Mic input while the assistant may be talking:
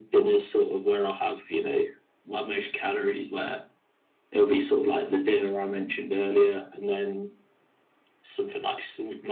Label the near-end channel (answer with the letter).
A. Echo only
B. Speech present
A